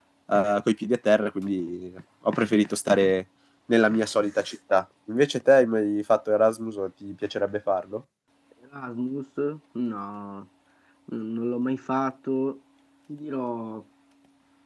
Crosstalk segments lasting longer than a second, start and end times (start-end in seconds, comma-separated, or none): none